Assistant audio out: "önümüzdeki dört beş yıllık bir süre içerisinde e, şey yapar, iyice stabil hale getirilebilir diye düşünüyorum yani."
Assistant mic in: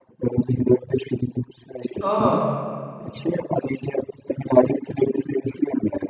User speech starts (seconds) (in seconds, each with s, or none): 2.0 s